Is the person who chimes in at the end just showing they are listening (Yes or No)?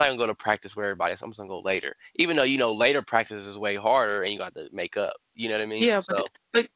No